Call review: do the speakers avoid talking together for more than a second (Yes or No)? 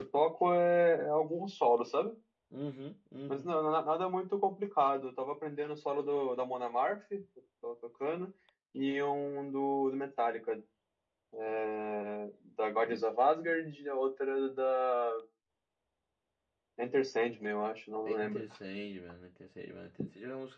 Yes